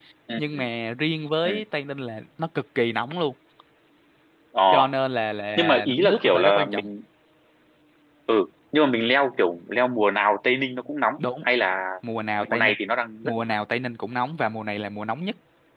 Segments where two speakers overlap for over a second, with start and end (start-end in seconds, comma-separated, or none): 5.6-6.9